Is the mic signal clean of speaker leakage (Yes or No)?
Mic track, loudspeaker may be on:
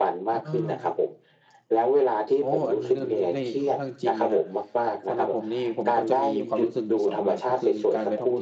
No